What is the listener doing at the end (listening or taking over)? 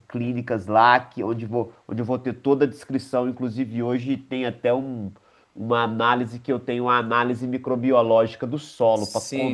listening